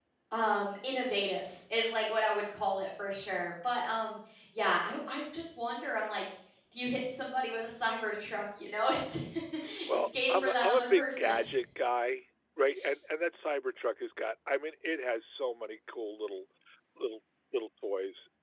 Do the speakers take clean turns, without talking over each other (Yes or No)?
No